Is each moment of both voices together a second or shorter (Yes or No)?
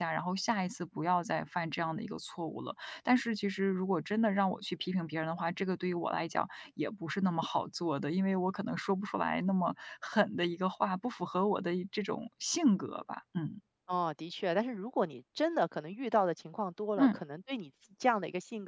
Yes